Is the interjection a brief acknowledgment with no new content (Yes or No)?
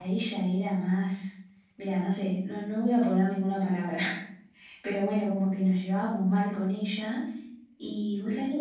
Yes